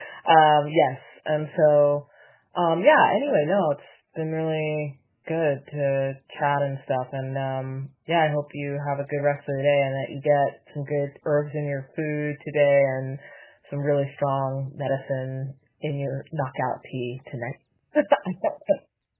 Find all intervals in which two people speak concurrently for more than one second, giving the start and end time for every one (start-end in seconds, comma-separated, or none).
none